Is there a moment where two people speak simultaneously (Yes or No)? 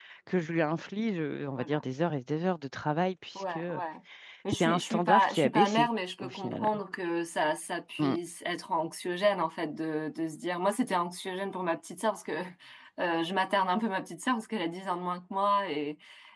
Yes